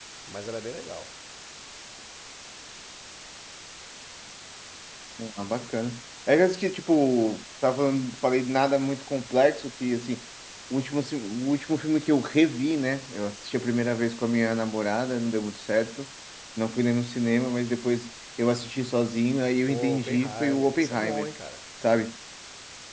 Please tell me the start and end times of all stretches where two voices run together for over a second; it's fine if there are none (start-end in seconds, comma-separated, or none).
19.6-21.3